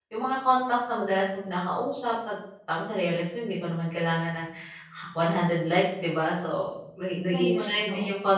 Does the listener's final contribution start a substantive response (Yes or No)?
No